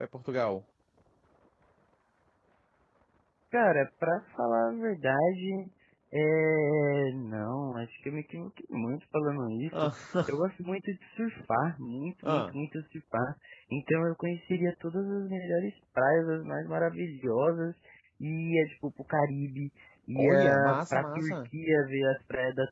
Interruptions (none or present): present